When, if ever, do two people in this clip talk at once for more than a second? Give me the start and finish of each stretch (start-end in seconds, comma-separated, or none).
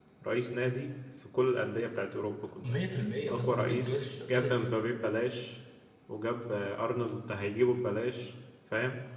3.3-4.7